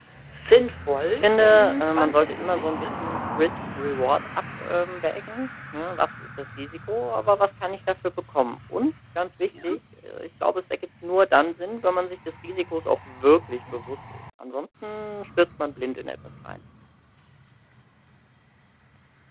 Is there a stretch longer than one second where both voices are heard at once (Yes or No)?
Yes